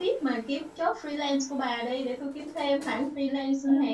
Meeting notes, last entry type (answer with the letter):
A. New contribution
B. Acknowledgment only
A